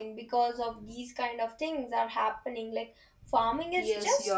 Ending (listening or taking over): taking over